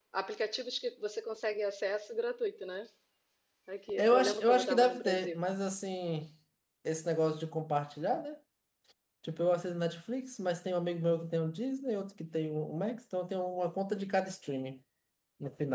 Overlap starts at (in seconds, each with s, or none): 4.0 s